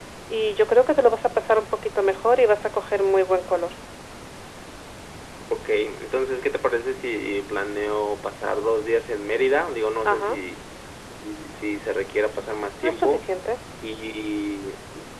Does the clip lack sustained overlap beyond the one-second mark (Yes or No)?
Yes